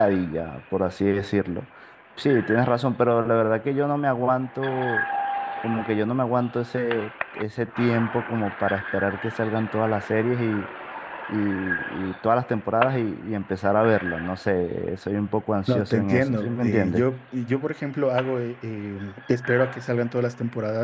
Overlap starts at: 15.7 s

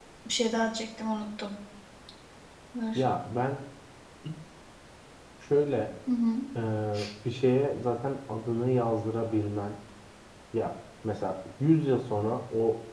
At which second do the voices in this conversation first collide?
none

